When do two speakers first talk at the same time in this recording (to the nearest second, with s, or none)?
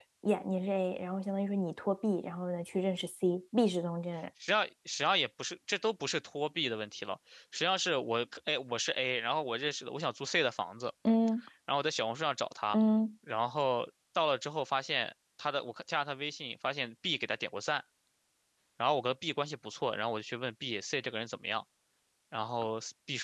none